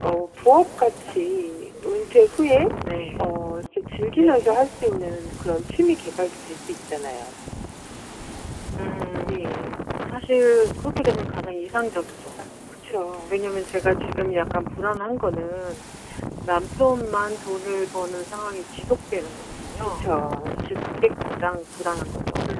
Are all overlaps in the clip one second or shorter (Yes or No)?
Yes